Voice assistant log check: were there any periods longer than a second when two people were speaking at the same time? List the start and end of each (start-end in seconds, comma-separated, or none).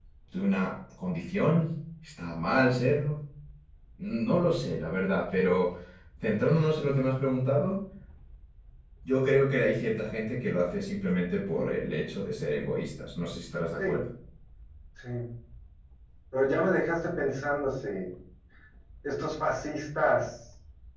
none